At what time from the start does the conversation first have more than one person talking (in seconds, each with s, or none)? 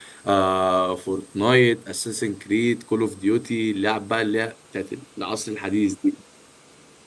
none